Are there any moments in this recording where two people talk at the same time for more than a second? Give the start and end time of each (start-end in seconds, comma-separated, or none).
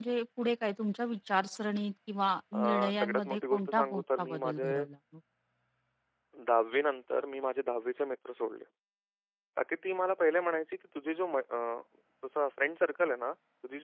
2.5-4.7